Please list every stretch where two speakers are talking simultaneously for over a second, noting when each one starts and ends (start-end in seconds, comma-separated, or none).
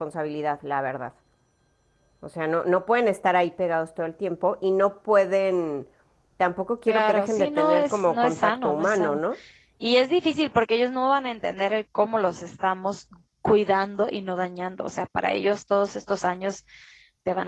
6.9-9.2